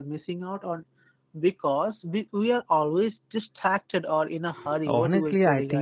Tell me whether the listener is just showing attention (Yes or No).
No